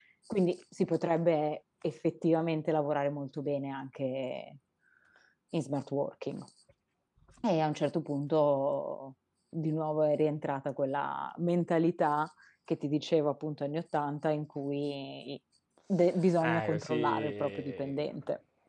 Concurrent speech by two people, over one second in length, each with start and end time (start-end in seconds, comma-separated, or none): 16.4-18.0